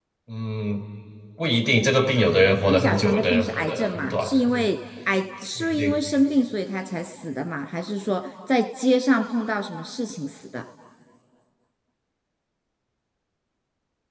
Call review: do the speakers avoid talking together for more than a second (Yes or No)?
No